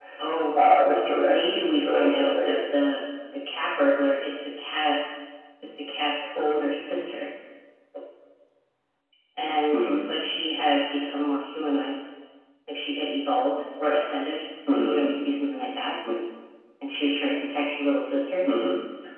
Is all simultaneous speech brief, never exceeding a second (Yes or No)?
No